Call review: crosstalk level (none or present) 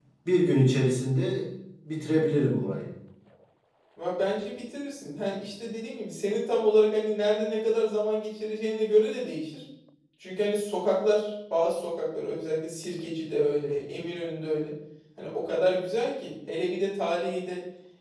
none